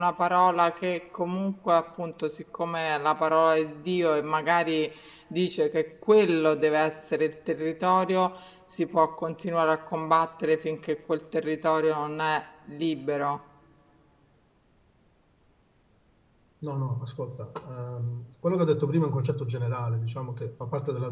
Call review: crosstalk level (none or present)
none